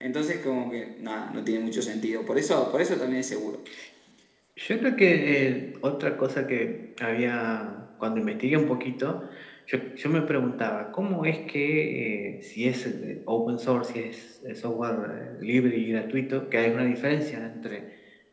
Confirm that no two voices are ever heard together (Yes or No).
Yes